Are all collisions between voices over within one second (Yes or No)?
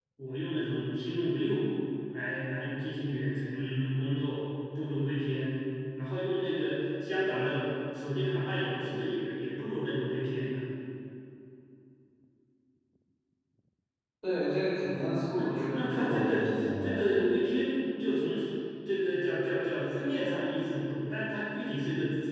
No